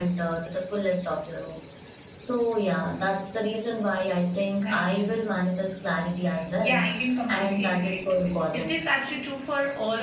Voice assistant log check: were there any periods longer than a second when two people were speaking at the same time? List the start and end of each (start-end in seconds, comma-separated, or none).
7.3-8.8